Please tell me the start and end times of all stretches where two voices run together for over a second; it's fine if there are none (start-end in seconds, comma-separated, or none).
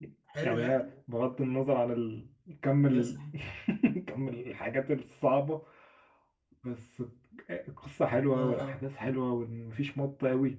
none